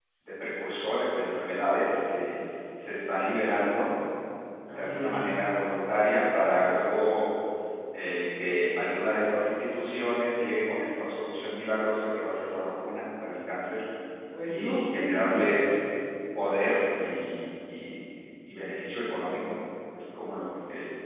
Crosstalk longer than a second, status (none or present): present